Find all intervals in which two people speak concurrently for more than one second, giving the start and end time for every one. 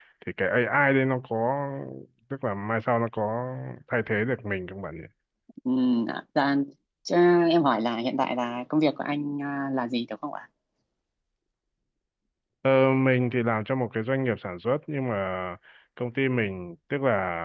none

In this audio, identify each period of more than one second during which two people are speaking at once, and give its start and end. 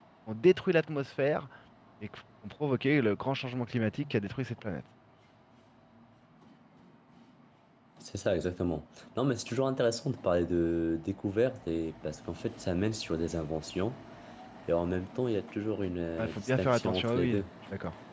16.2-17.4

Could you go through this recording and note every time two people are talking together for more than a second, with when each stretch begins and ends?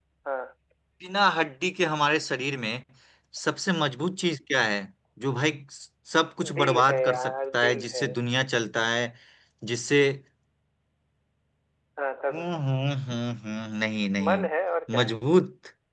6.6-8.0

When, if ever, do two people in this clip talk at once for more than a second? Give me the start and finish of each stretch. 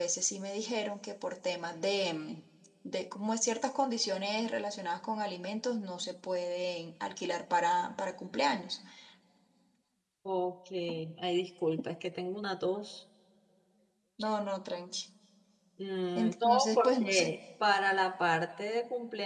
16.2-17.4

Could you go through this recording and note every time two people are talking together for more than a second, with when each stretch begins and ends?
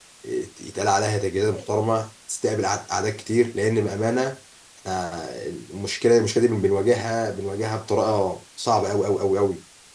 none

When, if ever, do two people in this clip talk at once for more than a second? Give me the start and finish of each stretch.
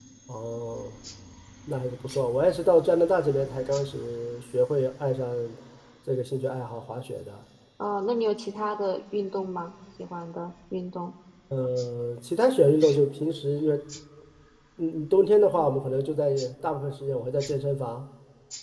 none

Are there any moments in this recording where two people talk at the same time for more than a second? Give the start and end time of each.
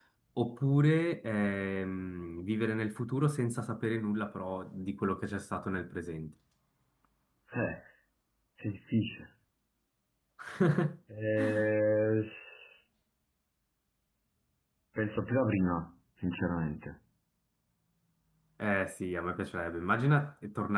none

